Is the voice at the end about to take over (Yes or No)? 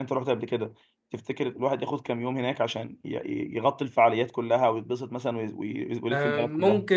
Yes